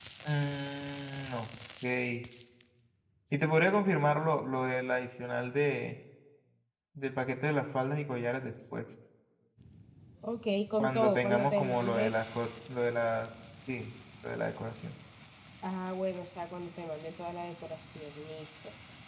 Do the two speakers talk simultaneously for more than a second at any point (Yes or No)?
Yes